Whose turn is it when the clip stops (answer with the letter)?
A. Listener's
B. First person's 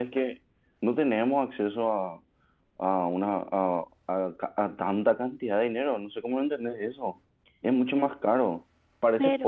B